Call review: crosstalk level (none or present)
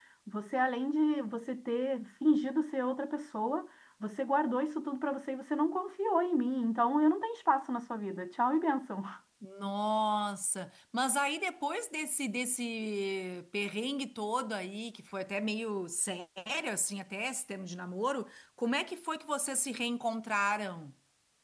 none